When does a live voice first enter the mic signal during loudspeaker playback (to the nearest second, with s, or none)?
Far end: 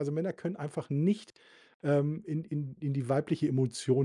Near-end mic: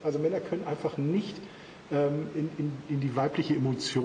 none